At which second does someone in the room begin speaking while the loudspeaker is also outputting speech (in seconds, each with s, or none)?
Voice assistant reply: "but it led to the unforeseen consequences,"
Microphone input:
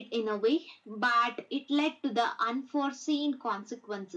none